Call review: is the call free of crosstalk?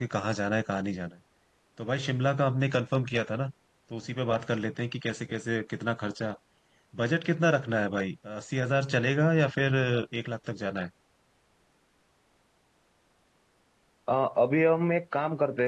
Yes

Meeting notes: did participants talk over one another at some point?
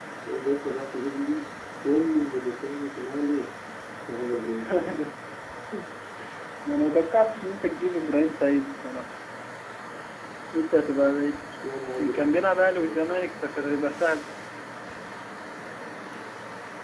Yes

